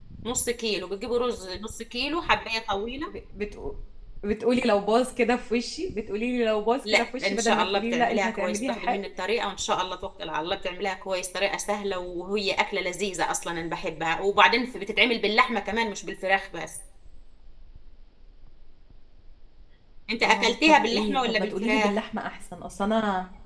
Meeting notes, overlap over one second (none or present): present